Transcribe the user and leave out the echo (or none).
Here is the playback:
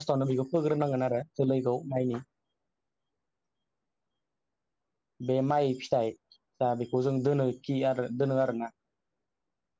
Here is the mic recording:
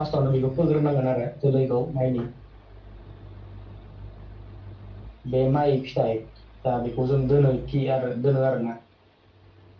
none